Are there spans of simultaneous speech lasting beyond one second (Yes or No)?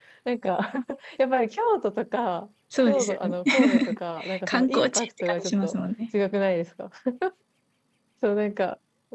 Yes